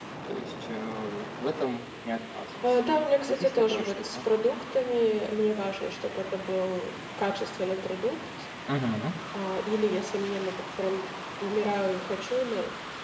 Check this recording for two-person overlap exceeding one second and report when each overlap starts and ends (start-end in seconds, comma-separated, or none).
2.6-4.2